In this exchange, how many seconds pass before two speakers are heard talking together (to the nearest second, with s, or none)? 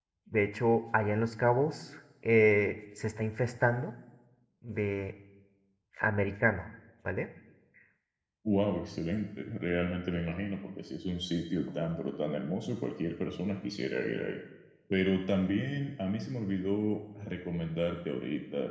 none